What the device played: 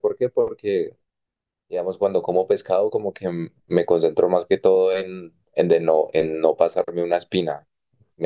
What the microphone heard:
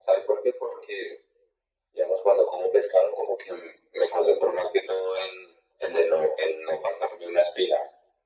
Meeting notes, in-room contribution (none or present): none